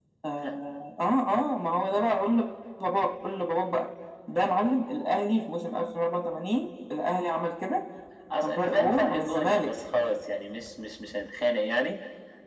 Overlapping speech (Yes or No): Yes